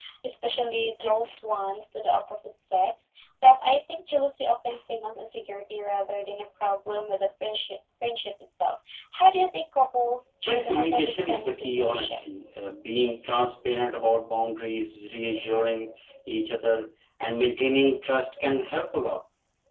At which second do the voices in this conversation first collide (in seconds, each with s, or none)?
10.4 s